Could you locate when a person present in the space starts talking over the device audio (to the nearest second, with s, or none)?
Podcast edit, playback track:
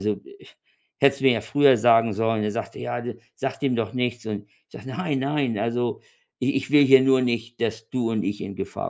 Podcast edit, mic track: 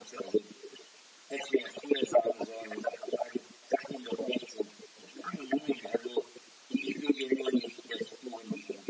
none